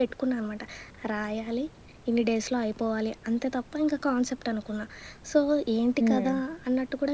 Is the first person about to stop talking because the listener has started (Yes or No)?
No